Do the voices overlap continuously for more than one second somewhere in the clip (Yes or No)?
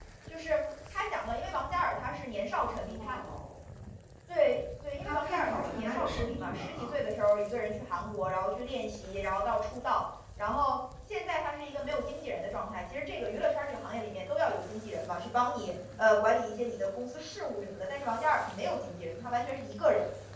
Yes